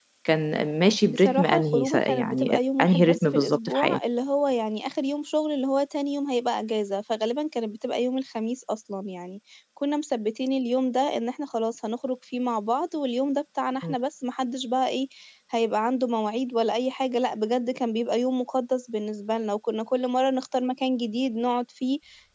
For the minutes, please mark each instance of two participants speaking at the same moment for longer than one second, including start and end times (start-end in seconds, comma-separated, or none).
1.1-4.0